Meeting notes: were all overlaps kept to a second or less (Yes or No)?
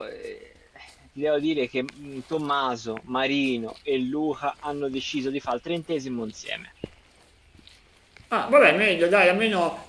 Yes